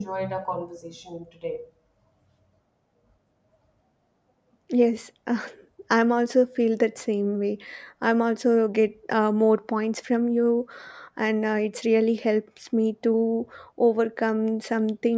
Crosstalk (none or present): none